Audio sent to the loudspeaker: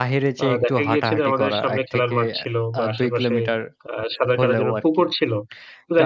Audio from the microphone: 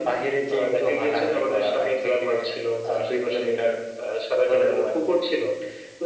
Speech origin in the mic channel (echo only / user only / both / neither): echo only